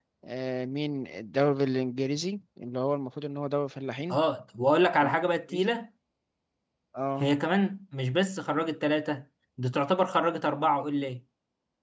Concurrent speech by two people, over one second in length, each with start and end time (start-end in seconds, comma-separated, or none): none